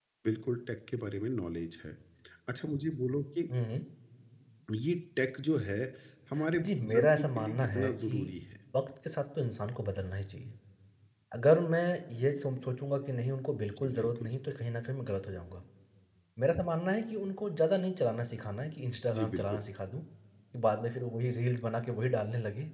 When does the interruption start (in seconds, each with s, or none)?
6.6 s